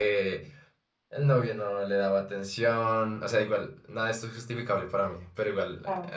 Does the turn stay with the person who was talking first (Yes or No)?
Yes